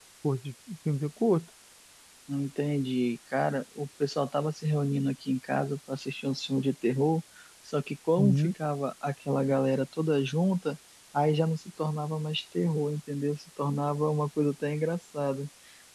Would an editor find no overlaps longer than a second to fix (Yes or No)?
Yes